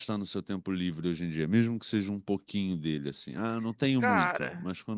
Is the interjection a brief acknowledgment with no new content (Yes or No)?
No